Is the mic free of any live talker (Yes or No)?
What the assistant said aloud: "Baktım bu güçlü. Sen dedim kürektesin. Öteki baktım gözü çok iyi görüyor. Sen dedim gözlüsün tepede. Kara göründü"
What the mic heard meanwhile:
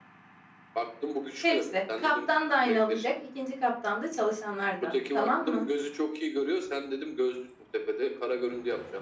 No